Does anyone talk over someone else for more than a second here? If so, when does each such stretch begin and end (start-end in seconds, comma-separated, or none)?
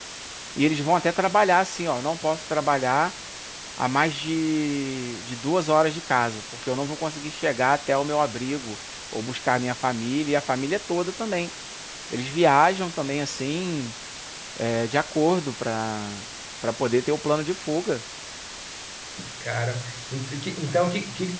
none